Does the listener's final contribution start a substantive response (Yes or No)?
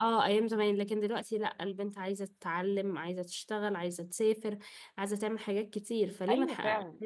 Yes